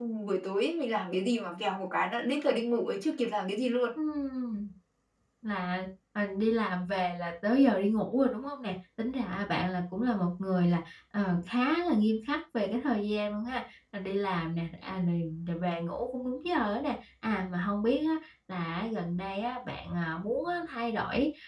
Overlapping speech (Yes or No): No